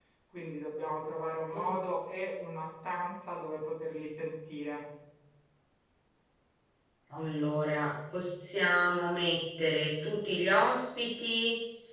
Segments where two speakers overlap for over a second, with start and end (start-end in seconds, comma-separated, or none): none